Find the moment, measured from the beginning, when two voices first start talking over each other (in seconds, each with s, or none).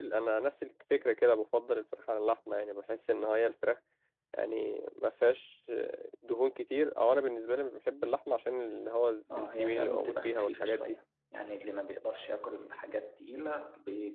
9.3 s